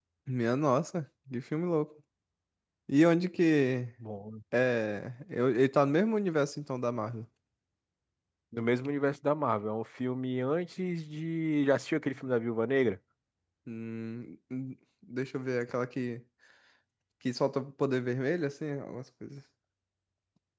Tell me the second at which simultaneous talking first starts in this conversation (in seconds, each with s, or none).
none